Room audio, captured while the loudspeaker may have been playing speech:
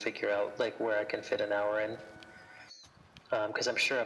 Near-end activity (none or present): none